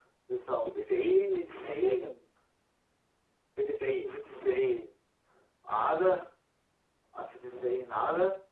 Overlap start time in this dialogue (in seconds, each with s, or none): 0.7 s